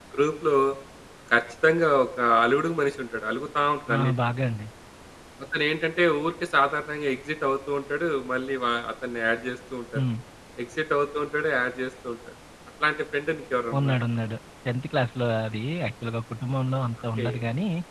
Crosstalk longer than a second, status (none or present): none